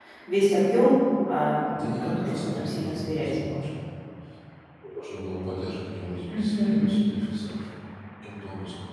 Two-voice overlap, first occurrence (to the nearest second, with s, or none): 2 s